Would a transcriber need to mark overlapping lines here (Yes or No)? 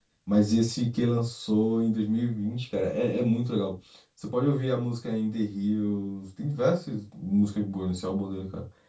No